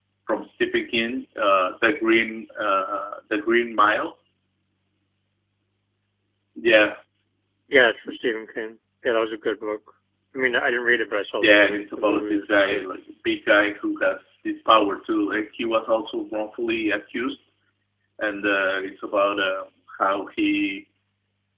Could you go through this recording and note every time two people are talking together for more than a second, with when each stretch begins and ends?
11.4-12.9

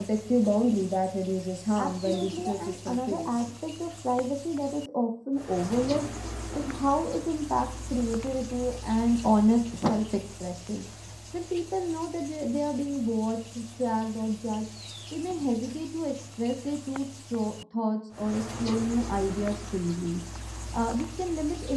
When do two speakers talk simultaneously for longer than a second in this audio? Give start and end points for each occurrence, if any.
1.8-3.5

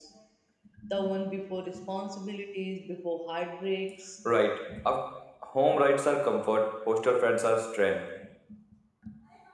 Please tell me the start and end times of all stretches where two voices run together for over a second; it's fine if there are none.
none

